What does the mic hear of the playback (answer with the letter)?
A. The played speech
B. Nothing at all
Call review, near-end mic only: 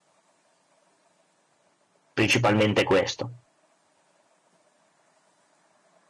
B